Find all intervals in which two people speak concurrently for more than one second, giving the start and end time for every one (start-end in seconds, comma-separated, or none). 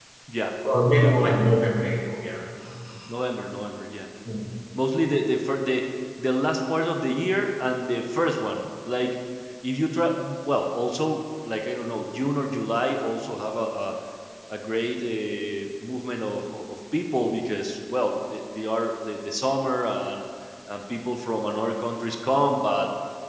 none